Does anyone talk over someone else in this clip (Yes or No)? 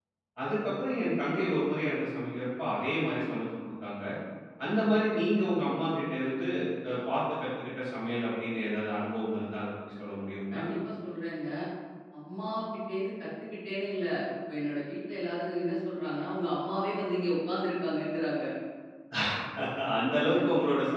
No